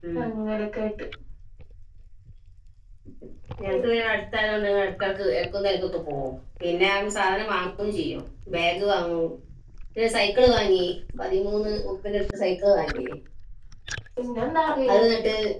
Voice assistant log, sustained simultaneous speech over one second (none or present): none